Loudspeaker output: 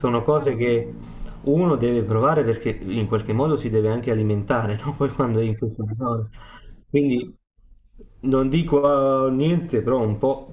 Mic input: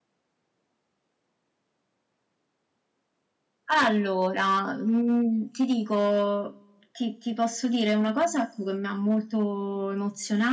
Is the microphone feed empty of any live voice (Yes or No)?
No